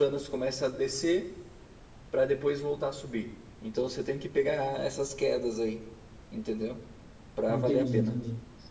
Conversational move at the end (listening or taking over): taking over